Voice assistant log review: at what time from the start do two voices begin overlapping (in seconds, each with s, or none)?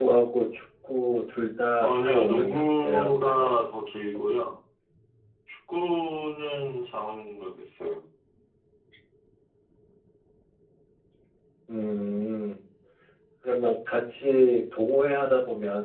1.8 s